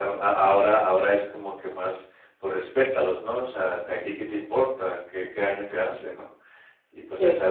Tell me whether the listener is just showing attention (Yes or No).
Yes